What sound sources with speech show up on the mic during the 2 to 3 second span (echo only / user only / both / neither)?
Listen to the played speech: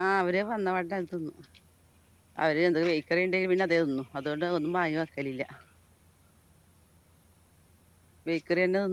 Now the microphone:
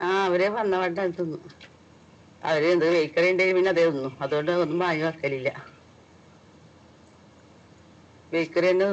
echo only